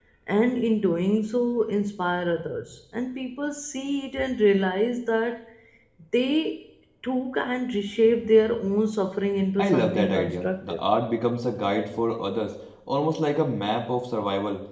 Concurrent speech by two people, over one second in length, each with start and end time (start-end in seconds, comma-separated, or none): 9.6-10.8